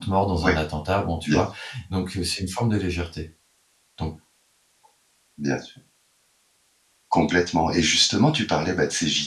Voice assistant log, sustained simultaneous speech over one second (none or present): none